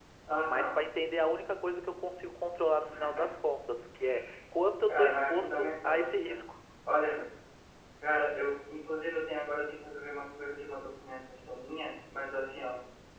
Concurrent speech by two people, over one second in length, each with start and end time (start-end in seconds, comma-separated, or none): 4.9-6.4